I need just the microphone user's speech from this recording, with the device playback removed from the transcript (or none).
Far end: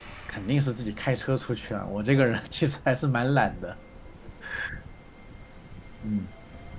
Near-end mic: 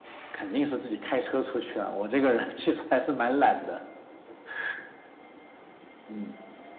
none